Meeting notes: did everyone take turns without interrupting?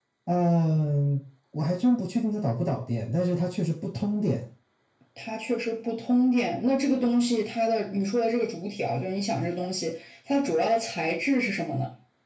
Yes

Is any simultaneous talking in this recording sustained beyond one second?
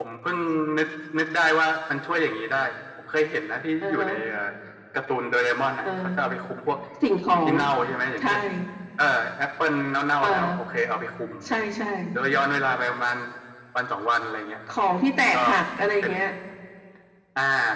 No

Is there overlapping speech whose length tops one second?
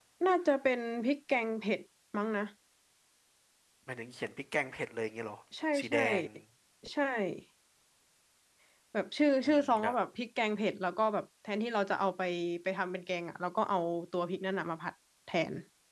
No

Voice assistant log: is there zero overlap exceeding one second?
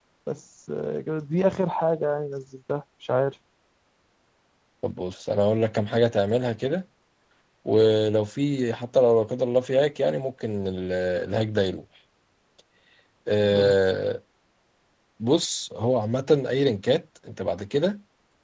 Yes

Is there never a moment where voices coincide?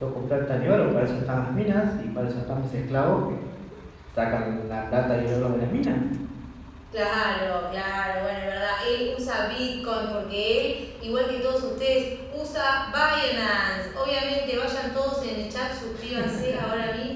Yes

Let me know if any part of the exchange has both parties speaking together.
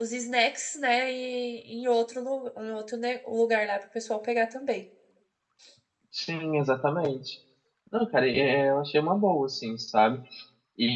No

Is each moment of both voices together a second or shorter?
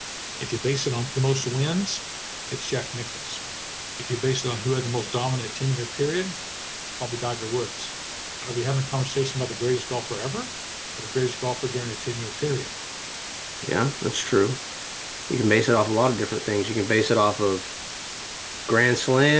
Yes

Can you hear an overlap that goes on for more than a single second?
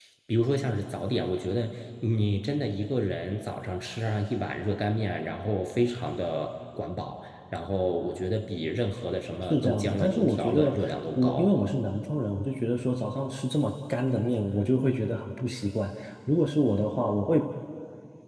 Yes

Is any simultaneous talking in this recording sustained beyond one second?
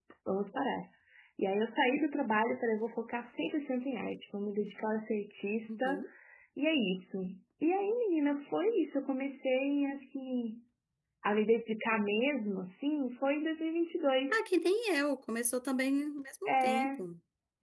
No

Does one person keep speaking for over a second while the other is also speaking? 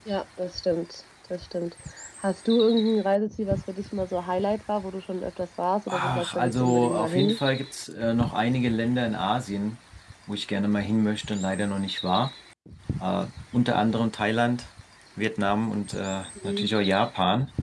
Yes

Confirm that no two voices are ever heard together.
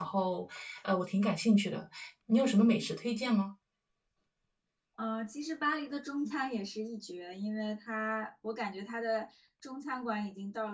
Yes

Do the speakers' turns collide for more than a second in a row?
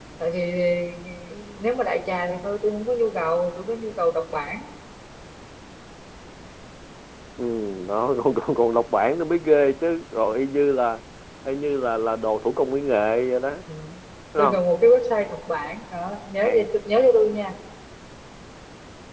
No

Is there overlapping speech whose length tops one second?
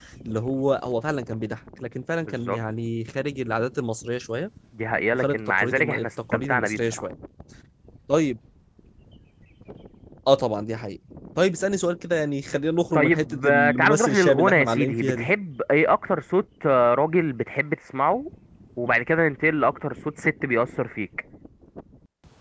Yes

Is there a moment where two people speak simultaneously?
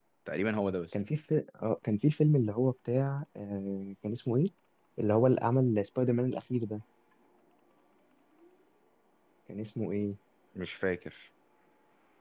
No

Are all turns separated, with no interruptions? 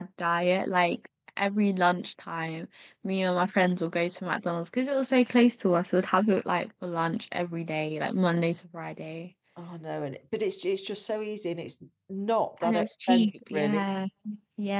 No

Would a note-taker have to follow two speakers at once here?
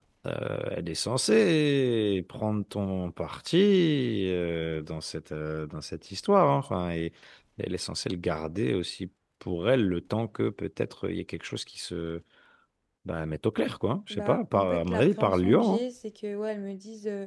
Yes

